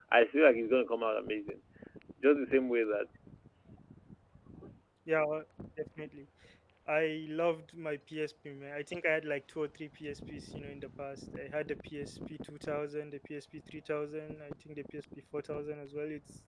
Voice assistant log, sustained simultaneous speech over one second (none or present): none